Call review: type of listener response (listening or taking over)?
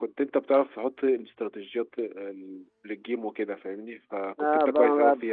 taking over